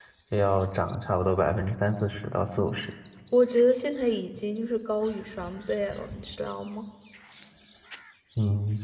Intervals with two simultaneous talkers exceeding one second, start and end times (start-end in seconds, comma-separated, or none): none